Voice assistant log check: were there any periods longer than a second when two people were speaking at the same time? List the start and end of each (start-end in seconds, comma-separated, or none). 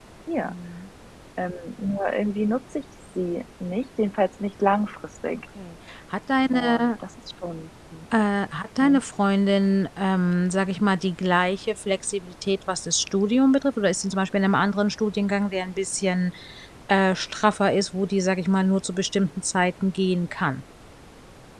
none